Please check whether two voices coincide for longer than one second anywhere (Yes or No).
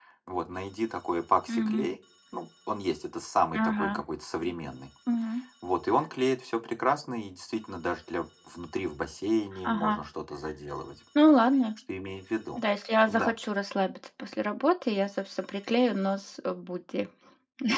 No